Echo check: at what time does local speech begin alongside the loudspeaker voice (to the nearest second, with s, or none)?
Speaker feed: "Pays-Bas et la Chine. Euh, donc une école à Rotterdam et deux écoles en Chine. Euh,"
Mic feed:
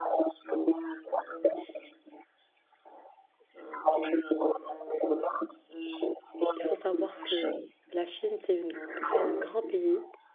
7 s